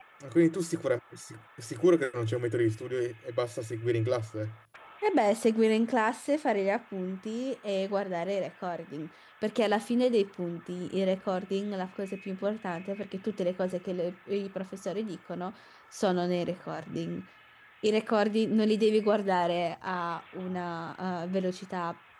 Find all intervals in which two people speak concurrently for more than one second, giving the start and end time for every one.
none

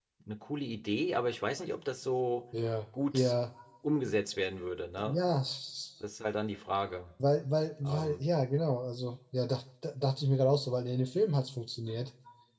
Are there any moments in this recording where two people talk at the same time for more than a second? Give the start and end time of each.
none

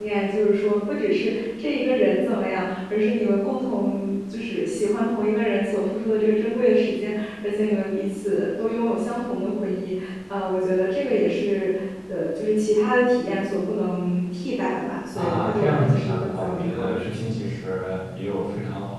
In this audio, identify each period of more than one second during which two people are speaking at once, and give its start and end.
15.1-17.1

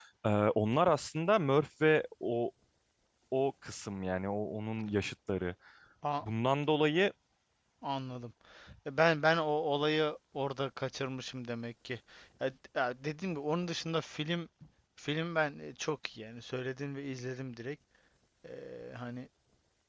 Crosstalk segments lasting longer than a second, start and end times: none

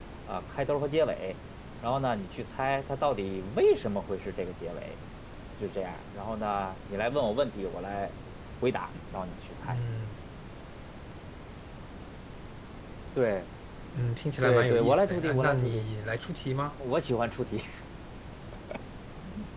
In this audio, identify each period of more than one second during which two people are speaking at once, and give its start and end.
14.4-15.8

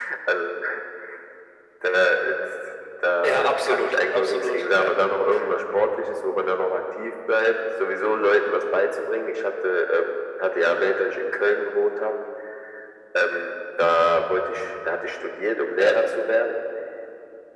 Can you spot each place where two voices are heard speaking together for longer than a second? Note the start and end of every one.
3.2-4.9

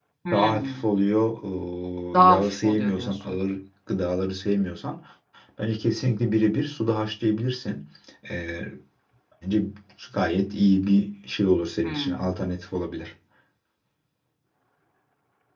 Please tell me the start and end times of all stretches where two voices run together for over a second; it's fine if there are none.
2.2-3.4

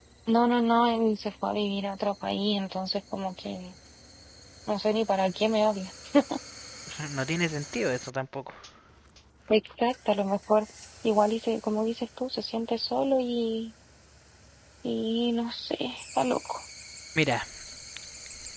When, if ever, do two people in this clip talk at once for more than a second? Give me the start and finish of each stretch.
none

